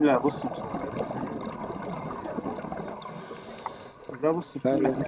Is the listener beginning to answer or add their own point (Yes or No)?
No